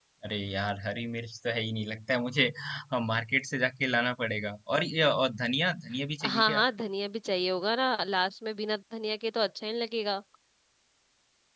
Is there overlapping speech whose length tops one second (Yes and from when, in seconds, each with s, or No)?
No